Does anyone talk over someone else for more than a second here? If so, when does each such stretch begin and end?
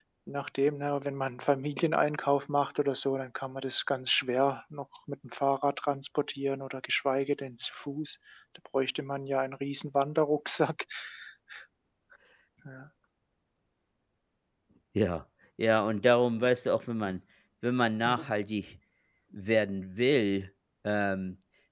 none

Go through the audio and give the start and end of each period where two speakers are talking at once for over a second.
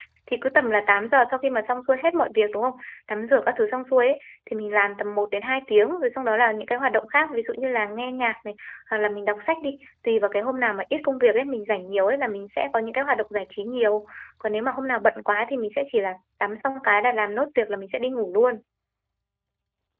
none

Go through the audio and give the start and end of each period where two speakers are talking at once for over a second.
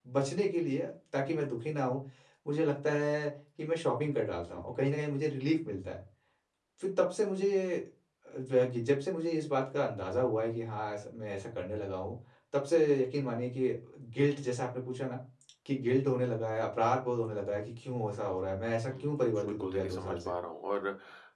18.9-20.3

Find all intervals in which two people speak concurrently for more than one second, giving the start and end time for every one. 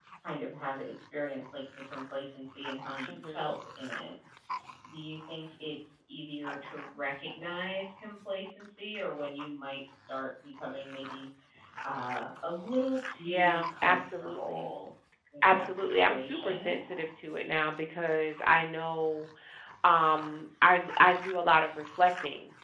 13.2-14.7, 15.4-16.8

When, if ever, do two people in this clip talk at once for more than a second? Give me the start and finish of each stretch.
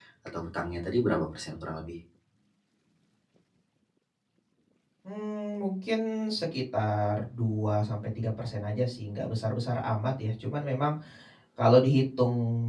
none

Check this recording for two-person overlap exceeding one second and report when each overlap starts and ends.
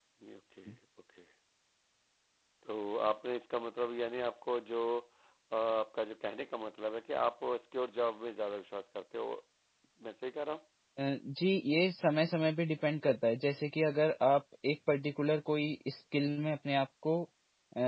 none

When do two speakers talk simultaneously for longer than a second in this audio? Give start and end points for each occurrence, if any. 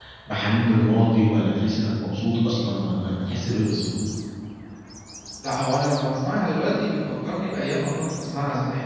none

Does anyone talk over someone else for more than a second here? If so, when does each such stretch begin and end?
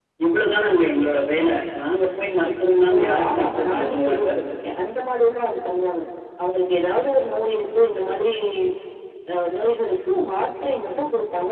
2.9-4.3

